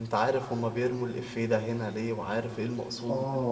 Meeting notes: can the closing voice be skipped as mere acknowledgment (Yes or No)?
No